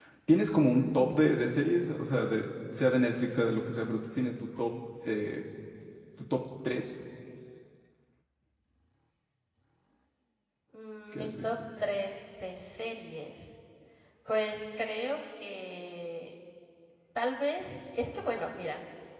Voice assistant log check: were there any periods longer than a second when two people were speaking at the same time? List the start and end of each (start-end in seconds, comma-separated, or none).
none